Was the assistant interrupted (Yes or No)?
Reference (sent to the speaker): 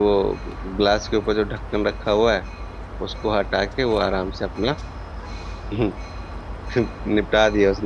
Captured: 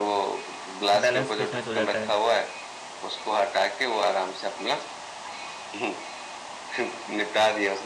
Yes